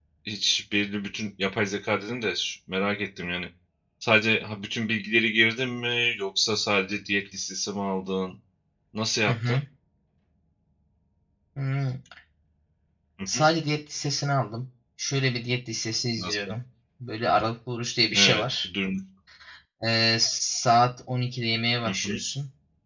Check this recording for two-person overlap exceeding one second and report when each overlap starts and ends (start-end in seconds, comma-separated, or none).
none